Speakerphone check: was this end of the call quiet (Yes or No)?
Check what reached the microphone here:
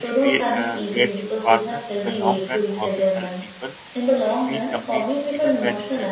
No